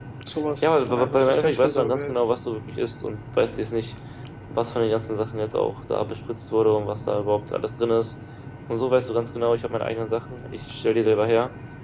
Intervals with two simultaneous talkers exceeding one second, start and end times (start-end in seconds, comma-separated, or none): 0.6-2.2